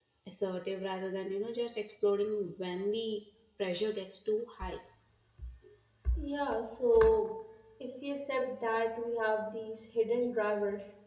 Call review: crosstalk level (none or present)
none